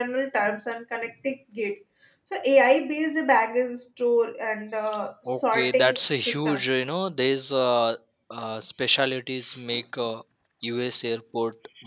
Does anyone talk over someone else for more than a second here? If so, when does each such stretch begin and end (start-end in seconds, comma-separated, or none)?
5.3-6.6